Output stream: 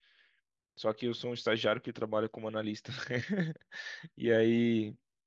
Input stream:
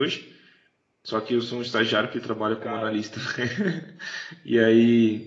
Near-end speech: present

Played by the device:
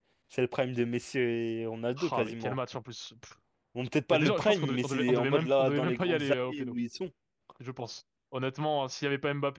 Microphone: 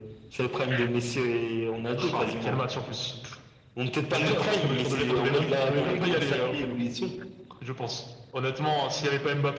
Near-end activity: none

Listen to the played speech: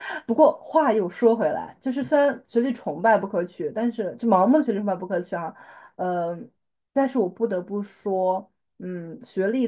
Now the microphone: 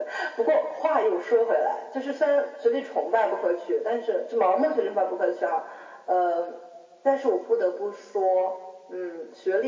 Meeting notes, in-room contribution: none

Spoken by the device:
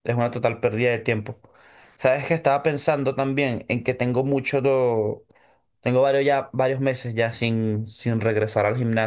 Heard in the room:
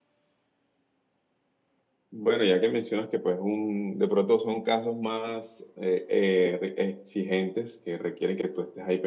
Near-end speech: present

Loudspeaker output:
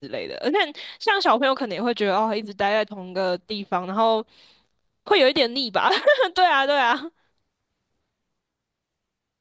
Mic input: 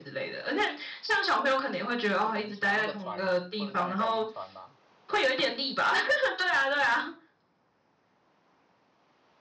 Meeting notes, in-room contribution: present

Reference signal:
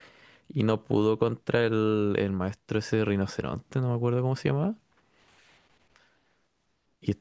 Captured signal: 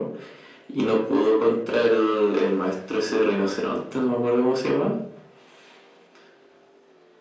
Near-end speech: none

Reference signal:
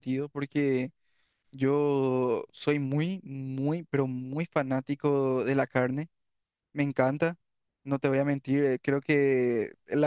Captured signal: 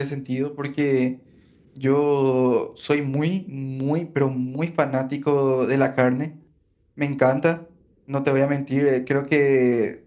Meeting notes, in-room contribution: none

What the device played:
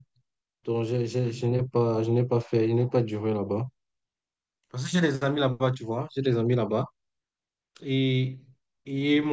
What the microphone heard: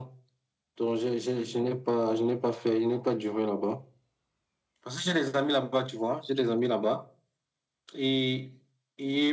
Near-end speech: none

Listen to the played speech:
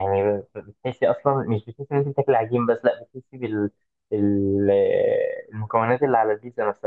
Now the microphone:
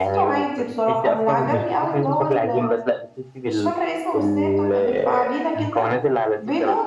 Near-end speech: present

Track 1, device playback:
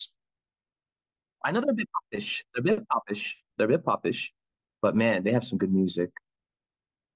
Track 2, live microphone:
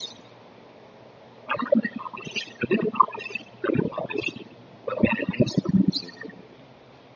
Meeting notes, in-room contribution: none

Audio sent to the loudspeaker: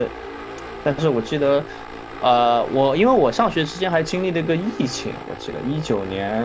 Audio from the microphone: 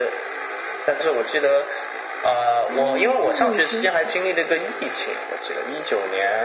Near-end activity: present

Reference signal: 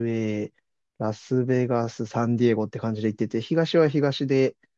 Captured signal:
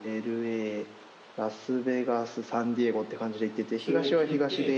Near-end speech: present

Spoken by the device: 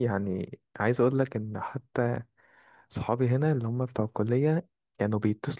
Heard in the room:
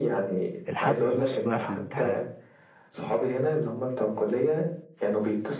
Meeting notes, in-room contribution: present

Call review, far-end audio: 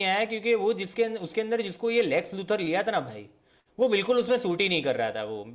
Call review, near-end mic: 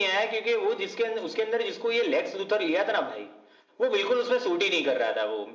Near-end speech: none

